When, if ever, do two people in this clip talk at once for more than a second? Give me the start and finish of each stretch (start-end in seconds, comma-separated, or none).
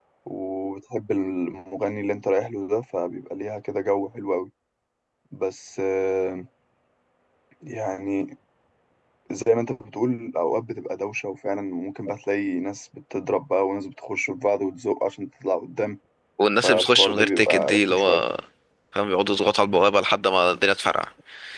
16.6-18.2